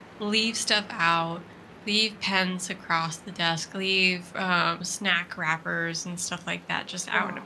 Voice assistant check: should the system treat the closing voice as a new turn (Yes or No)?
No